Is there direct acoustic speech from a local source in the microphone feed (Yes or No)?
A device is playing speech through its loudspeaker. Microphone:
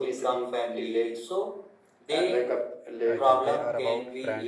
Yes